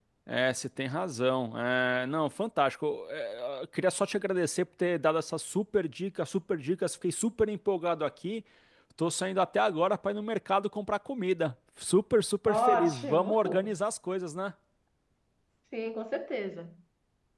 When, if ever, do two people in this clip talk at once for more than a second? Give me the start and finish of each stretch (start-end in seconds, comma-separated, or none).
12.5-13.8